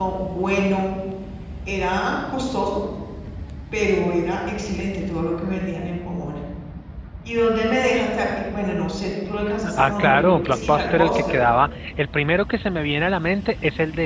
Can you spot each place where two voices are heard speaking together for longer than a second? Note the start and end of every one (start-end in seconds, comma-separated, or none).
9.7-11.3